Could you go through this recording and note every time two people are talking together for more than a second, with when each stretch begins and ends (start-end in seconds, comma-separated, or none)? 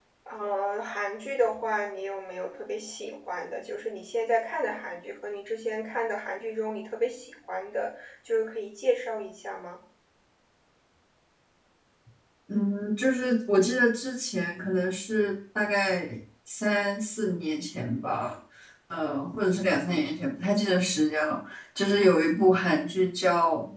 none